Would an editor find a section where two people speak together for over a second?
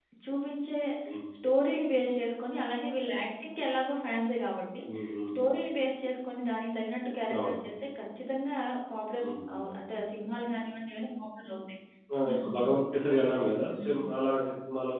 No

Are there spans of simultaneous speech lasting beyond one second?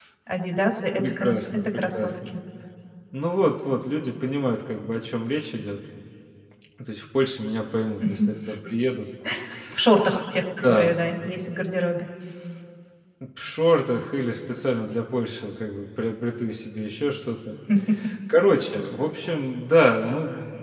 Yes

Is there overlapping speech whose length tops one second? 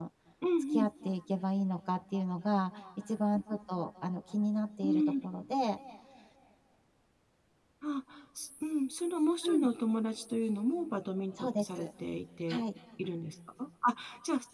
No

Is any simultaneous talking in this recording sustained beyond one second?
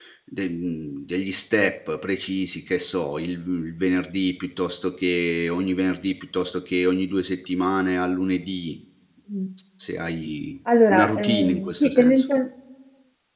Yes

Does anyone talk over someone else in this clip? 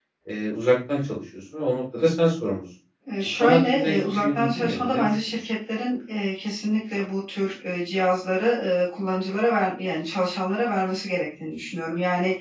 Yes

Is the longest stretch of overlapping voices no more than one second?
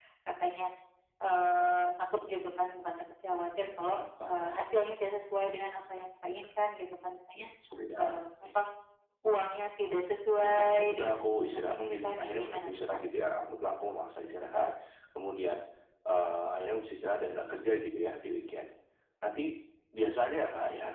No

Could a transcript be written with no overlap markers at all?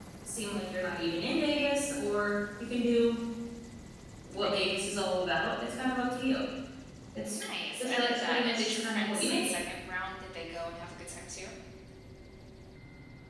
No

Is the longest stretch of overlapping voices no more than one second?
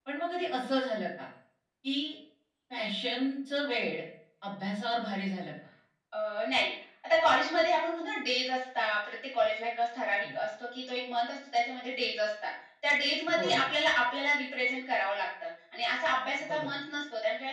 Yes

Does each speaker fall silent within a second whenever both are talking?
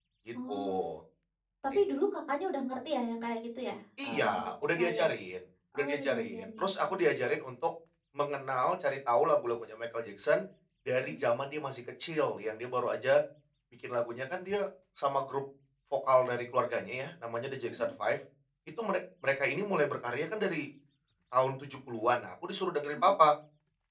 No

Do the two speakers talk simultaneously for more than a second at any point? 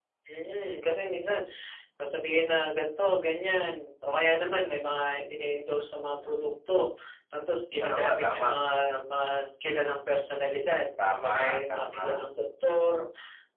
Yes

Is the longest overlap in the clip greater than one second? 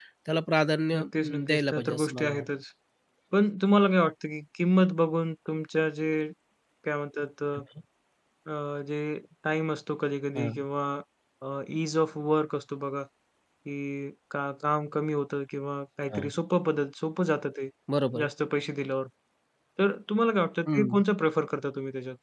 Yes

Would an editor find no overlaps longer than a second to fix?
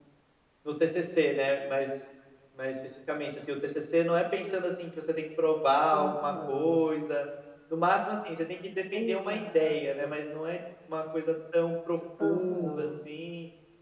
No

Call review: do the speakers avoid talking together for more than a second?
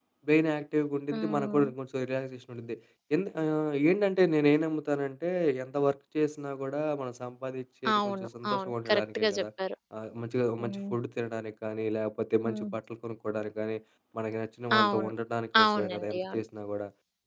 No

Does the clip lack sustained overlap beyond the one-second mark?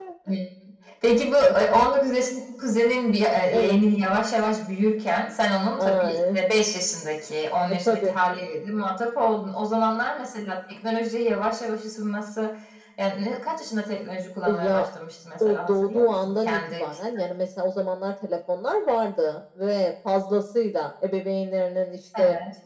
No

